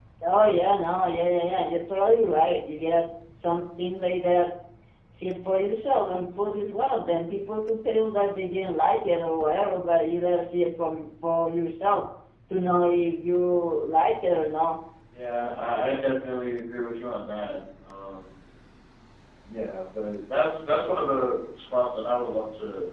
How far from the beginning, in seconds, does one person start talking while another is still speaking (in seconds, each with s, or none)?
none